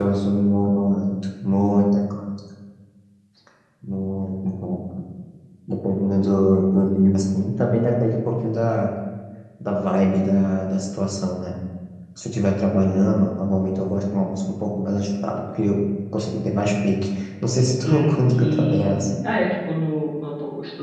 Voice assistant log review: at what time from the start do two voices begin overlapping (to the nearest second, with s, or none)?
18 s